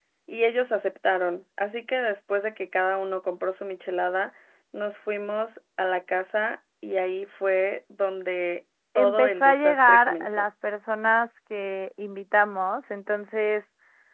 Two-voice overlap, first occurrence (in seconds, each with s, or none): 9.0 s